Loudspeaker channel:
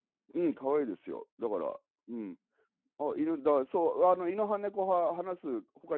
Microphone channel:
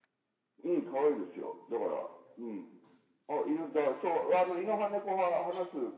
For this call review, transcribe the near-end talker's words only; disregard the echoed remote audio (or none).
none